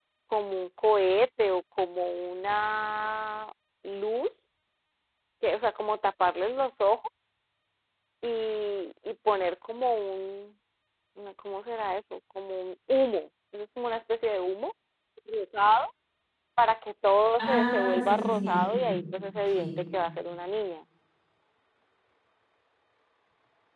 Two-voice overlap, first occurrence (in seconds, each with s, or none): 17.4 s